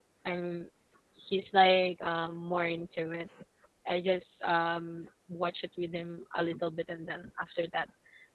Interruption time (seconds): none

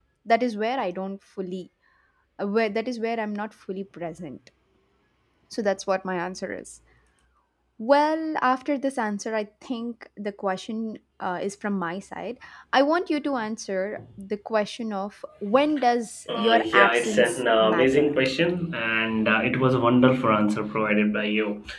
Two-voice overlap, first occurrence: 16.3 s

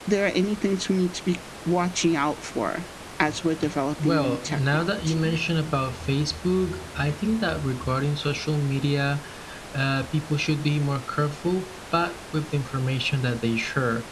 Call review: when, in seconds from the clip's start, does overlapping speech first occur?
4.0 s

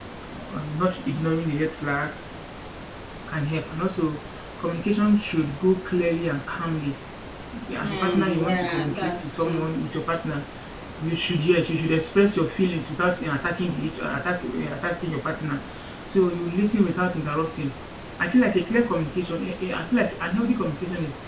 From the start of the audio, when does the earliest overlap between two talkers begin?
7.8 s

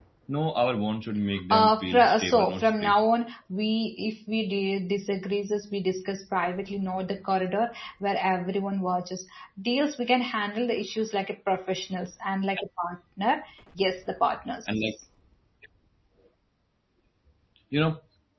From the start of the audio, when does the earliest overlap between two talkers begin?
1.5 s

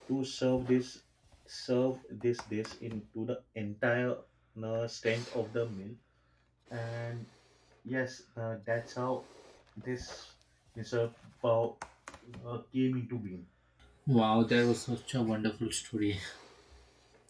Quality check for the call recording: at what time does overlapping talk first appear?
none

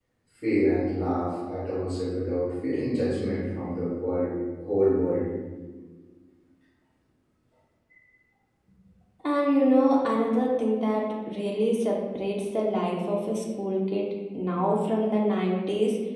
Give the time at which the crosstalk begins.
none

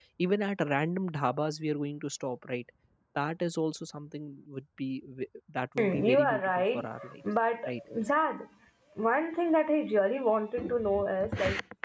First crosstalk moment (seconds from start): 5.8 s

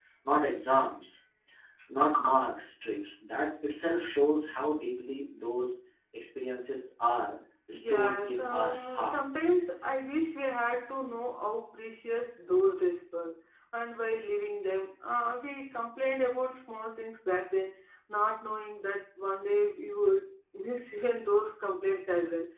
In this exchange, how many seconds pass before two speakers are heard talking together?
7.7 s

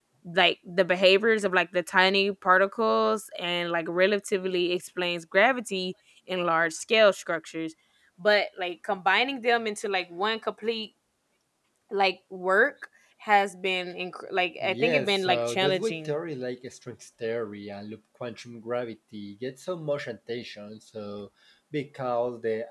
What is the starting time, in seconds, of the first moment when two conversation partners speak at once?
14.6 s

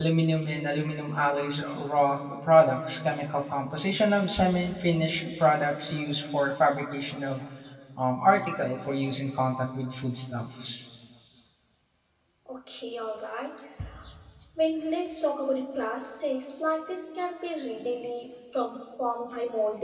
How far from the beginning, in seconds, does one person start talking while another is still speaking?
none

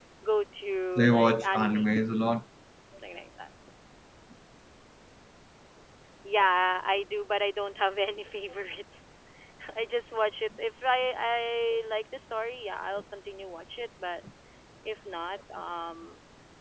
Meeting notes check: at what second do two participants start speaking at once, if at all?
1.0 s

